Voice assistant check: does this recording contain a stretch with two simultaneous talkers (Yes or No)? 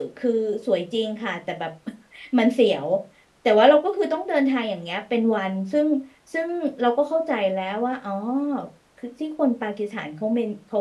No